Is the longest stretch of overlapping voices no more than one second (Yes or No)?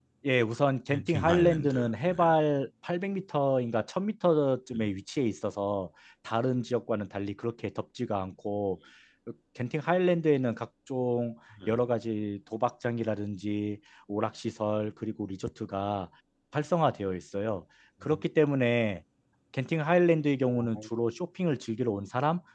No